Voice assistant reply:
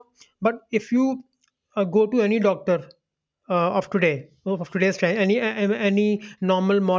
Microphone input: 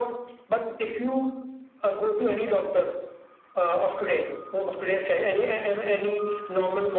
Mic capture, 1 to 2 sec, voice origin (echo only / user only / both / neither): echo only